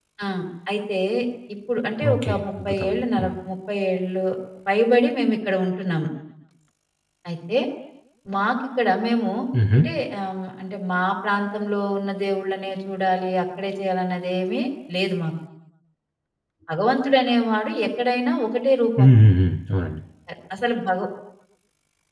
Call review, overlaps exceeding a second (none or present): present